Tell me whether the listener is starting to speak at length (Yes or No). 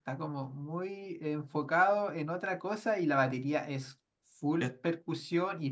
No